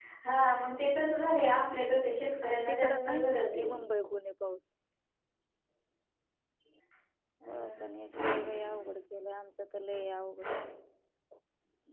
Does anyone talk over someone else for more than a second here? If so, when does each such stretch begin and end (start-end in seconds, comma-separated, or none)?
2.4-3.7